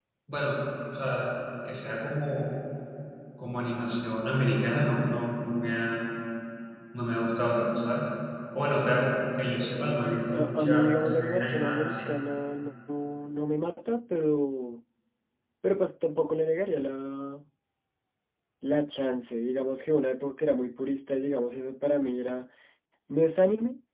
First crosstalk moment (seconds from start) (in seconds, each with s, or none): 10.3 s